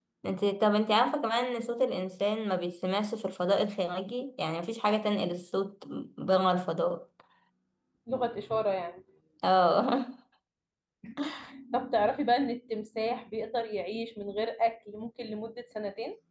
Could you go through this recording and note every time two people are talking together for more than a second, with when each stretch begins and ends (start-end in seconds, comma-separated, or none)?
none